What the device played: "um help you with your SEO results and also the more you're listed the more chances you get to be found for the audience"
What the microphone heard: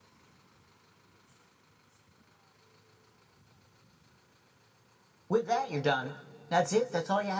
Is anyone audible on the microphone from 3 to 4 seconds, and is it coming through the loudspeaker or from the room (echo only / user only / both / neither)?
neither